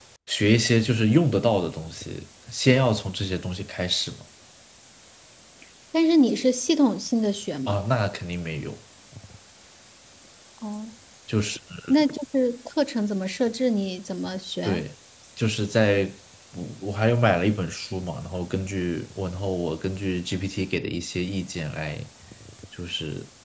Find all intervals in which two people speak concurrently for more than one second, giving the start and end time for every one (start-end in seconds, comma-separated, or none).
none